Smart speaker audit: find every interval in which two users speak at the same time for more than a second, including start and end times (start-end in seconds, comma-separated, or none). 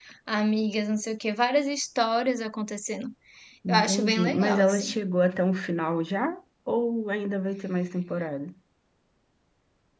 3.7-5.0